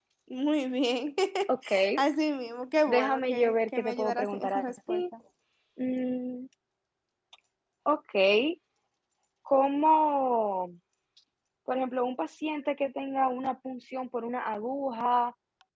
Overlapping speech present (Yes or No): Yes